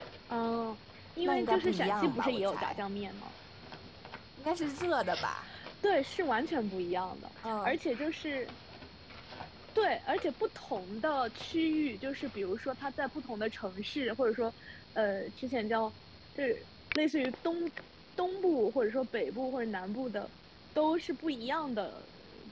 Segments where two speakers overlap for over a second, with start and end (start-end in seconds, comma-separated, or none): 1.2-2.8